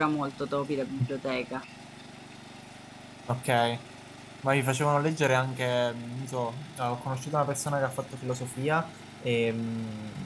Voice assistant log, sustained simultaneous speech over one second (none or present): none